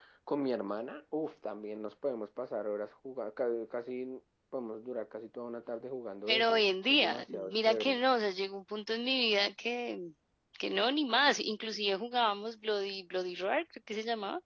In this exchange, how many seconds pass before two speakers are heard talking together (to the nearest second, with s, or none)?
6 s